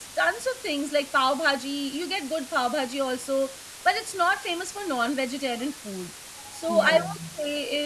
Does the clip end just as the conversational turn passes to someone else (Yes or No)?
No